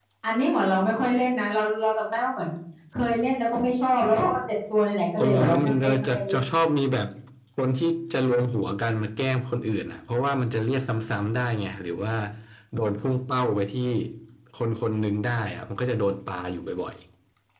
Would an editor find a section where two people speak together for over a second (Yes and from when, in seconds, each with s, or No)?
Yes, from 5.1 s